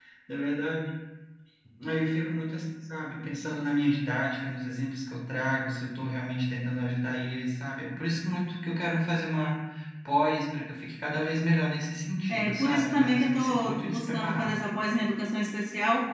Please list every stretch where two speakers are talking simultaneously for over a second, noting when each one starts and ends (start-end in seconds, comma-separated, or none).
12.3-14.6